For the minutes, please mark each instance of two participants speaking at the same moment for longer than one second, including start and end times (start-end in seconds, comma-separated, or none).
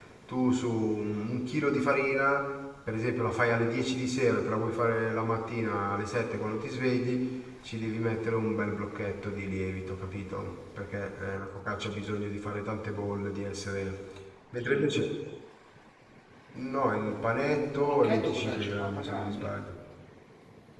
17.4-19.5